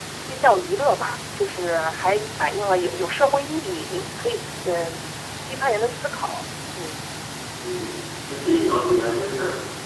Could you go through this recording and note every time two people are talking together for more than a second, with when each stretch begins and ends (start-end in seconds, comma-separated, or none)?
none